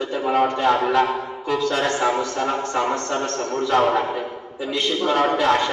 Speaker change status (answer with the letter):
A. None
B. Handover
A